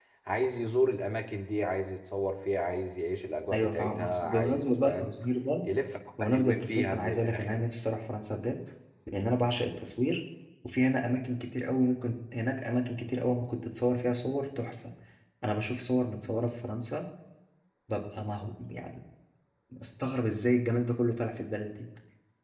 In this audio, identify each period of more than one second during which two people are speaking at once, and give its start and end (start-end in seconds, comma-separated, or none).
3.5-5.1, 6.2-7.6